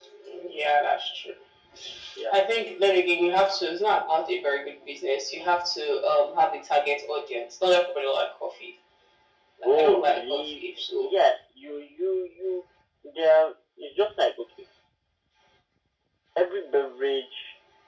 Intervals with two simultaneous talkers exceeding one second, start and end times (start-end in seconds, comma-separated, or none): 9.6-11.1